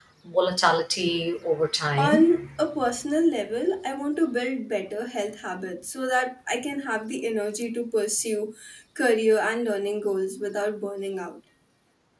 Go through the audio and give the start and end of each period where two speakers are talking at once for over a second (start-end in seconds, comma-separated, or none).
none